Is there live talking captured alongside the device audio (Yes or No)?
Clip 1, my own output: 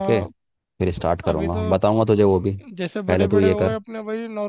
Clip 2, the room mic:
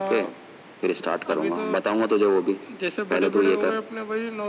No